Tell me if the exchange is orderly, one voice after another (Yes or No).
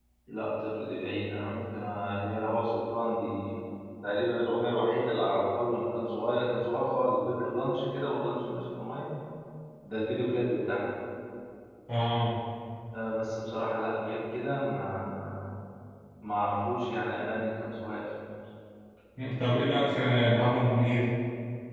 Yes